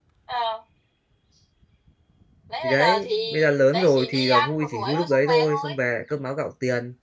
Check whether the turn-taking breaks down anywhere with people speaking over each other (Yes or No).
Yes